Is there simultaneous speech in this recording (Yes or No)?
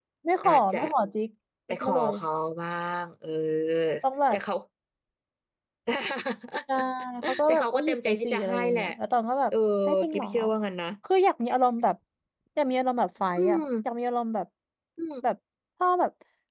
Yes